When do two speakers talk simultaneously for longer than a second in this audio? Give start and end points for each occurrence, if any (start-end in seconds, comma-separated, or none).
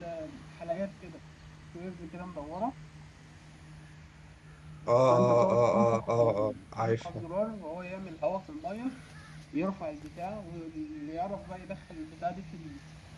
5.1-7.2